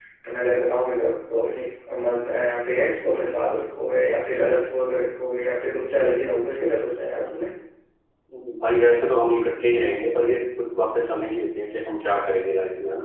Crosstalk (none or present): none